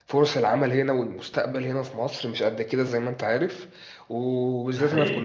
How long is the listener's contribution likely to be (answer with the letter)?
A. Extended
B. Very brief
B